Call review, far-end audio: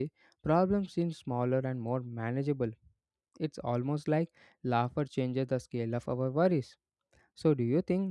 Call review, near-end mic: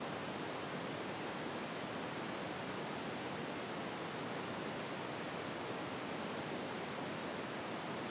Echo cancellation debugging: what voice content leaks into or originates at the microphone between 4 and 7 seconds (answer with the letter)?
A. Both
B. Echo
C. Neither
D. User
C